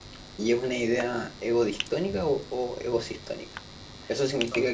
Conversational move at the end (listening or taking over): listening